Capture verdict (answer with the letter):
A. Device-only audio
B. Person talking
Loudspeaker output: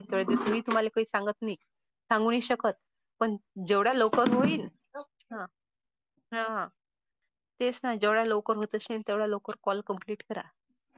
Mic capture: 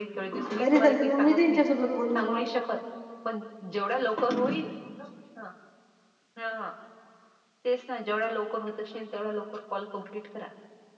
B